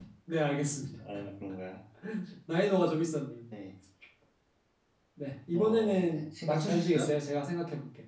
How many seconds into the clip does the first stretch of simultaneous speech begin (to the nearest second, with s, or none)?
6 s